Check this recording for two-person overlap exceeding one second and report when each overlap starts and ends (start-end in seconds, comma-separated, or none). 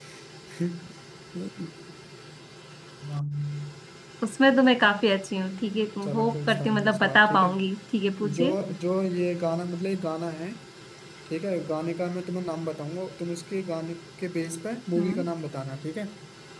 6.0-7.5